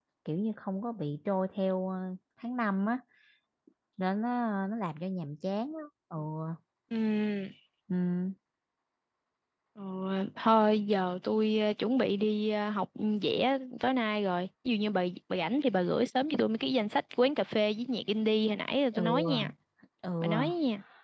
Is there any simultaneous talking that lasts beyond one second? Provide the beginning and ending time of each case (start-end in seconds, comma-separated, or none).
none